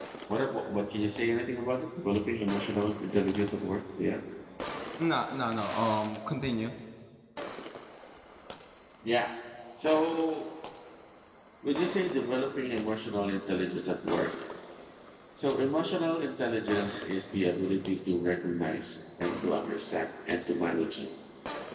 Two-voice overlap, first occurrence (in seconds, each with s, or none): none